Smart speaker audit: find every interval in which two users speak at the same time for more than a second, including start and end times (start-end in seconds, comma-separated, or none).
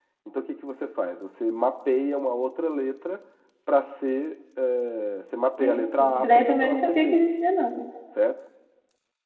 5.6-7.2